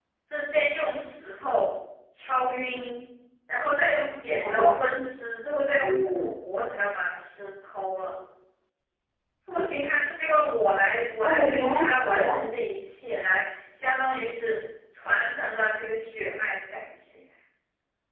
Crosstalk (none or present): present